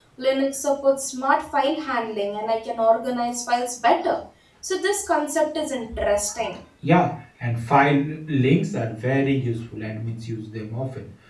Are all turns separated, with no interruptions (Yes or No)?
Yes